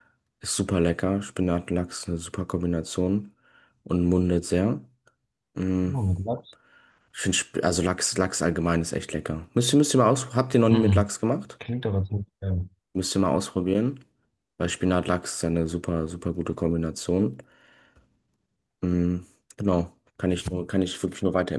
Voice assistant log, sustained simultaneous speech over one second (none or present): none